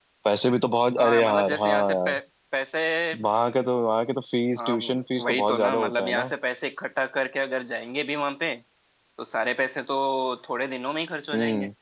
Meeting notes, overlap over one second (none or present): present